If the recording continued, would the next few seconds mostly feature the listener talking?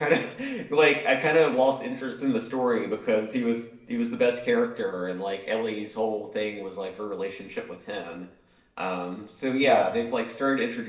No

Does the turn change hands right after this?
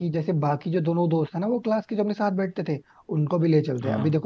No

